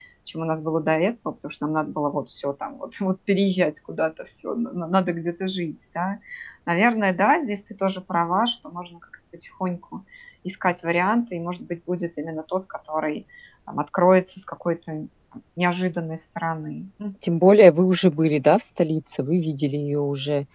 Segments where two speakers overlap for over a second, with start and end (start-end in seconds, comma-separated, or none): none